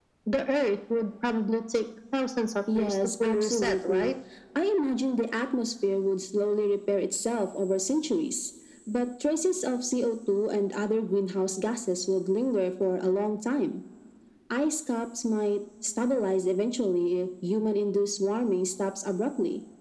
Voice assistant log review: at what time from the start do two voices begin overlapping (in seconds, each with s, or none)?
2.7 s